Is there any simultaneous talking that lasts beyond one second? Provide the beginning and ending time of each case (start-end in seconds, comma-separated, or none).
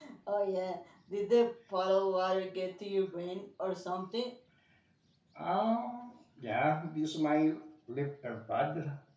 none